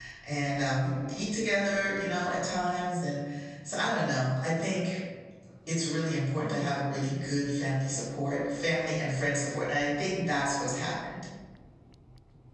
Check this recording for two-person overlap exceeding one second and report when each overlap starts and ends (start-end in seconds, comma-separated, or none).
none